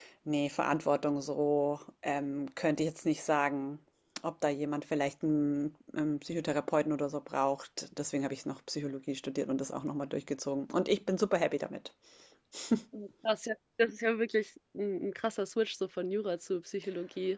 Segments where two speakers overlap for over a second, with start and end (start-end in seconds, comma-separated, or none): none